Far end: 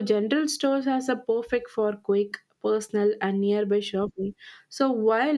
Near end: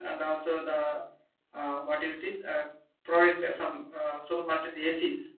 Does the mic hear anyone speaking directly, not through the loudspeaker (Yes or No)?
Yes